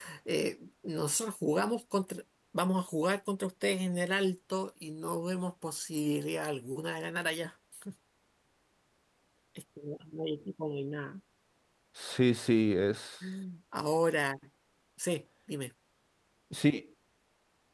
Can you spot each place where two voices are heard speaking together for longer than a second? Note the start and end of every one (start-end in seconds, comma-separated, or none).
none